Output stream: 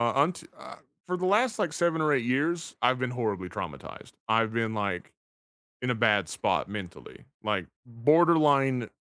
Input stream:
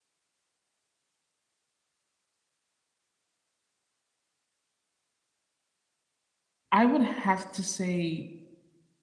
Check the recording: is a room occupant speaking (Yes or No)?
Yes